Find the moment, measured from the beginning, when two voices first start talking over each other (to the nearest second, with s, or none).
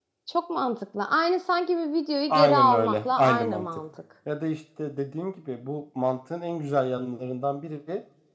2 s